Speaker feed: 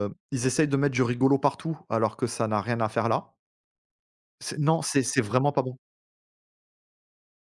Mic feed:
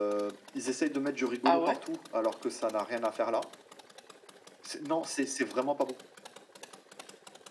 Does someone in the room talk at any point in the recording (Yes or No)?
Yes